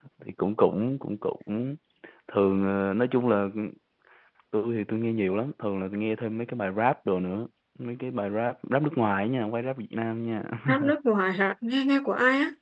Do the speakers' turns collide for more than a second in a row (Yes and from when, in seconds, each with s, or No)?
No